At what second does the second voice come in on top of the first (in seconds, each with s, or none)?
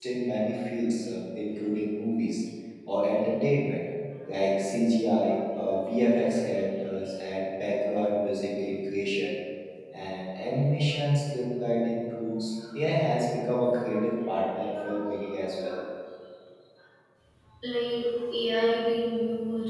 none